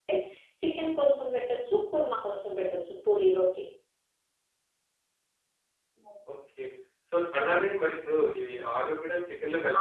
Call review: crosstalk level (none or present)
none